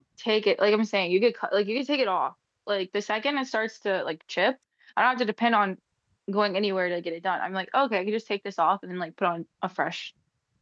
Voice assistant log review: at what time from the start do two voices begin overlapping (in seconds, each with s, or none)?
none